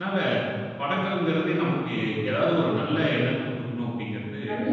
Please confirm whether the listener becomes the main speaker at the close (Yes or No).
Yes